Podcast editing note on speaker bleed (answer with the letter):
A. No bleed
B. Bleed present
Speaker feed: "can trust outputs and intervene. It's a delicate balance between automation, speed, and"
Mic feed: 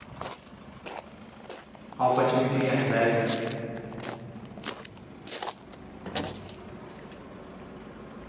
A